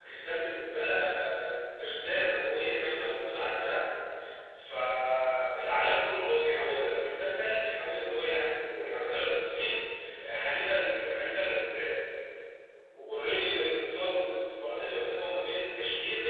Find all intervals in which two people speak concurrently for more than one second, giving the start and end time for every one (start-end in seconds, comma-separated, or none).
none